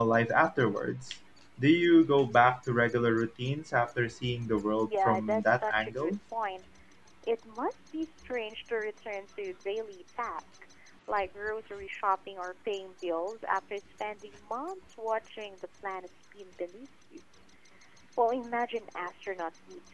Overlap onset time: 4.8 s

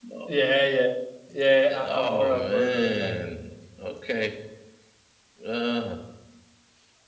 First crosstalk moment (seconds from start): 1.8 s

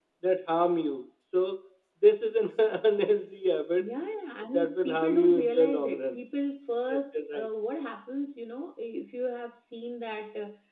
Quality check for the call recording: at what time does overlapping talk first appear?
4.5 s

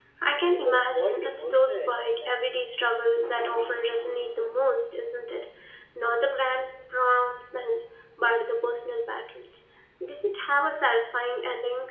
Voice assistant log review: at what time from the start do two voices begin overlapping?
0.5 s

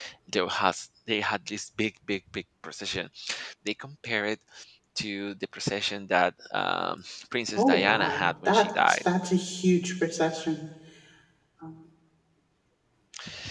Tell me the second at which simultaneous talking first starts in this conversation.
7.6 s

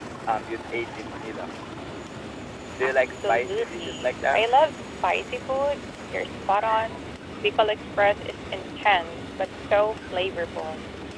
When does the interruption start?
2.8 s

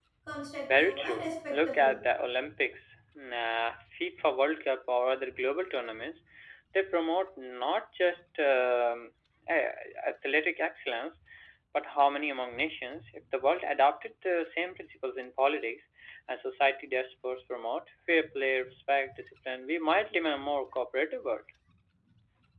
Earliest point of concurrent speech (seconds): 0.7 s

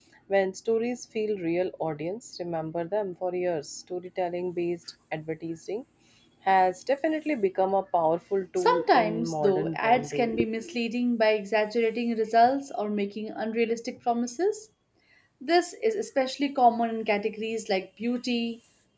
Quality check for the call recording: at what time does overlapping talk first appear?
8.6 s

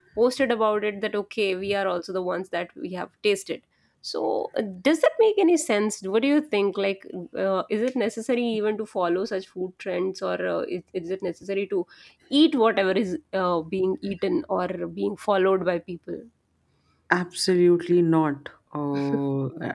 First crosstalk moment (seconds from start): none

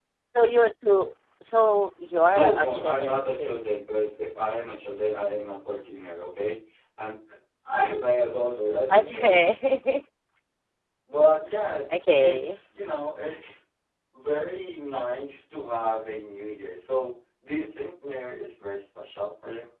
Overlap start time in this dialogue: 2.3 s

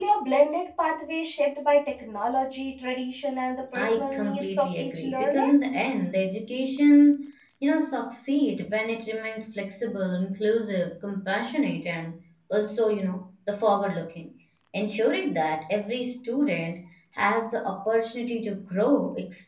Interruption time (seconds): 3.8 s

